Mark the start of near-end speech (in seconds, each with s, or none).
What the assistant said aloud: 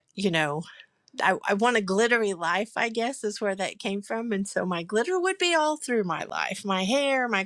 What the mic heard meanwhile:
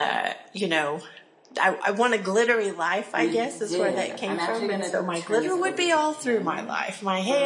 3.1 s